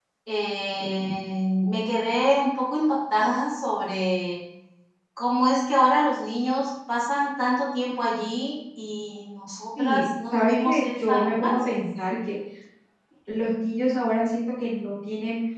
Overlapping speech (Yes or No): Yes